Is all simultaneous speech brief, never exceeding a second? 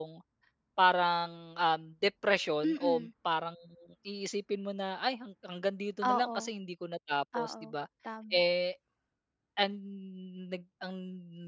Yes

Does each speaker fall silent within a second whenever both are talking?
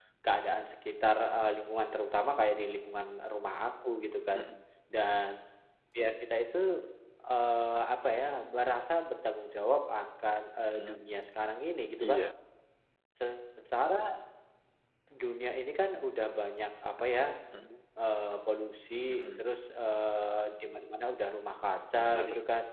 Yes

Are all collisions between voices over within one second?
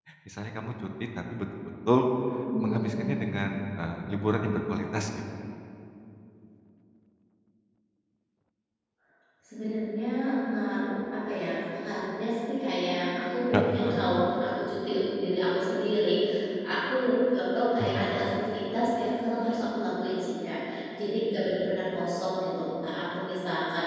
Yes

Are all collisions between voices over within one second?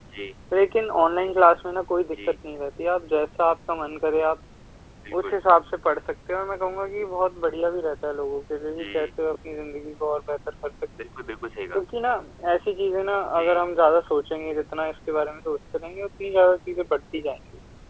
Yes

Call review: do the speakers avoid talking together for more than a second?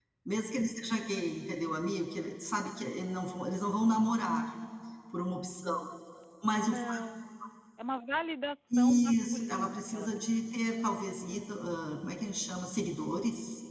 No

